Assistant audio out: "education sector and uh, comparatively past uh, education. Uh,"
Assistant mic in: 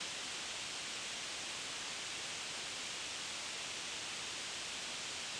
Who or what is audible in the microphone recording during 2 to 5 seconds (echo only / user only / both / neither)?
neither